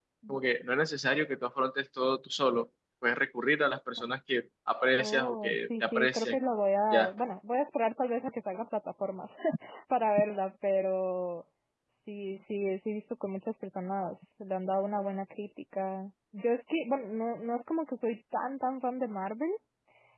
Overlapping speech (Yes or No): Yes